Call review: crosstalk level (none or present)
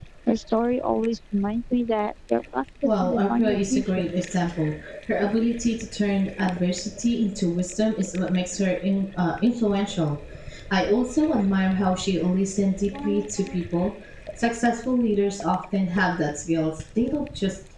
present